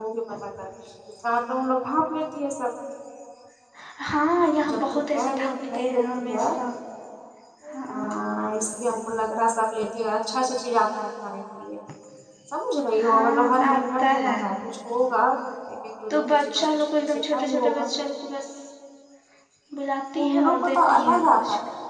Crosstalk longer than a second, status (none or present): present